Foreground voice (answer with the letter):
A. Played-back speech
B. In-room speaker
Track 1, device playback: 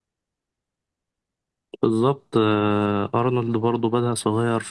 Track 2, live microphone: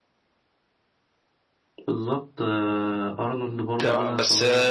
B